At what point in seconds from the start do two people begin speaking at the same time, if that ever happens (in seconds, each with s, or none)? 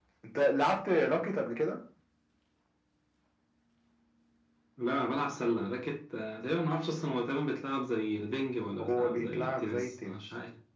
8.8 s